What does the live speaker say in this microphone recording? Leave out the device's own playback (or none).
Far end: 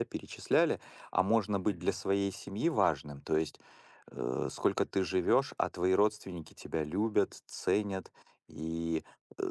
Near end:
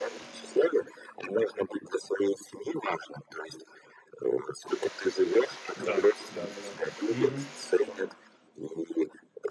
Да, да-да-да. Мгм.